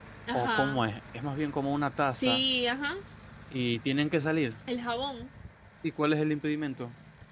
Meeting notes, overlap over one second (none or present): none